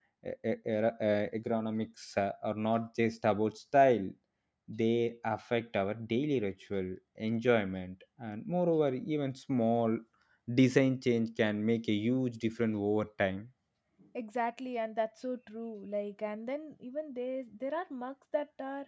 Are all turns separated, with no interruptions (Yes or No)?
Yes